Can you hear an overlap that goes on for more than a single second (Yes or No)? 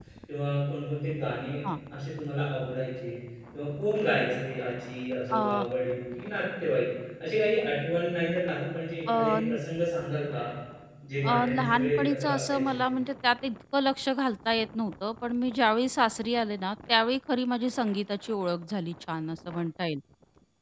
Yes